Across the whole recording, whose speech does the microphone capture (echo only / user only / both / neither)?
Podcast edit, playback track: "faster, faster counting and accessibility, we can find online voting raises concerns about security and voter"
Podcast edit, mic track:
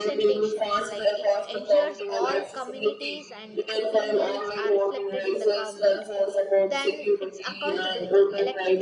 both